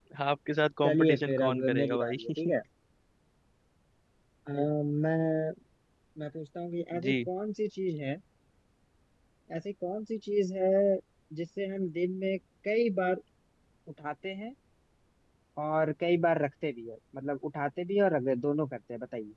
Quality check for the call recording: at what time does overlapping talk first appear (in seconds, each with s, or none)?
0.8 s